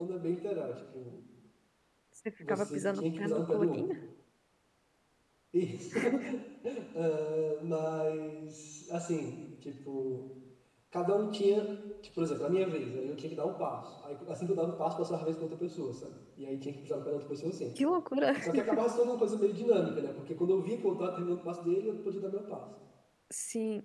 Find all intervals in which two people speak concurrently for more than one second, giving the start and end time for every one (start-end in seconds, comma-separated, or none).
2.5-3.8